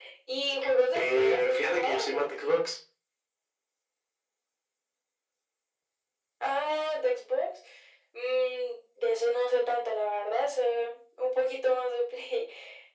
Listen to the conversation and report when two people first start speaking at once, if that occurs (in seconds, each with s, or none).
0.9 s